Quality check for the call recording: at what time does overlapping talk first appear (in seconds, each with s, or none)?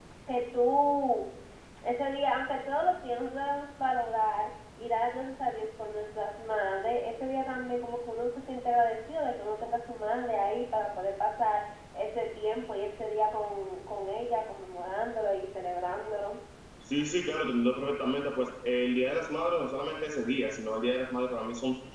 none